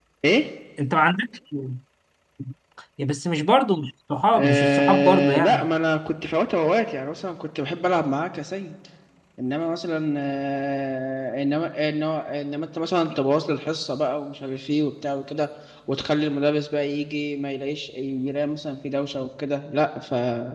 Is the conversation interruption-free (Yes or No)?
No